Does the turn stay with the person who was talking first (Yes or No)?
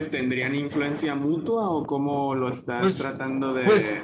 No